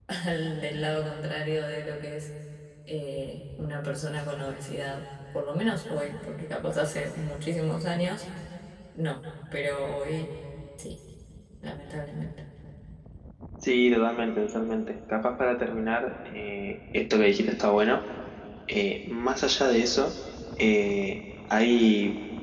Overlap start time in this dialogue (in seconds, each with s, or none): none